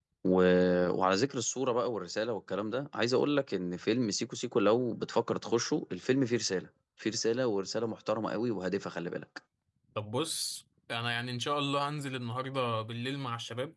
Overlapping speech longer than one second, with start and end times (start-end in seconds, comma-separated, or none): none